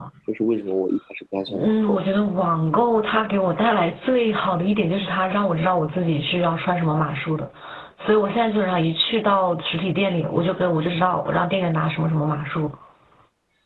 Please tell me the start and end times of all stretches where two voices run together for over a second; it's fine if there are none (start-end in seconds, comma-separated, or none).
none